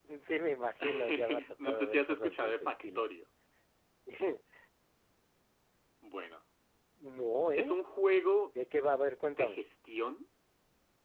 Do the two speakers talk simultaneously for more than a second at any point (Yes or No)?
Yes